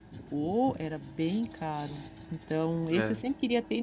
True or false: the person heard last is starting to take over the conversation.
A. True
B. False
B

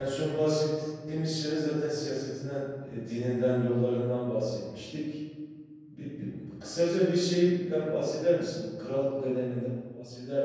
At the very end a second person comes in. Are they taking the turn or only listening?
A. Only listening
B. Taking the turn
A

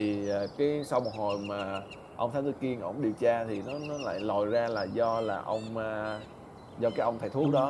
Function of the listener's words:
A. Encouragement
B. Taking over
A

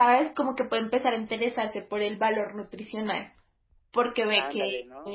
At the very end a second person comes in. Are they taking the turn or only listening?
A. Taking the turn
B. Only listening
B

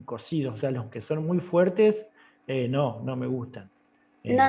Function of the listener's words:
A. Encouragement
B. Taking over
B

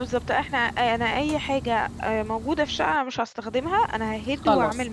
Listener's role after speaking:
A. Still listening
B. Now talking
B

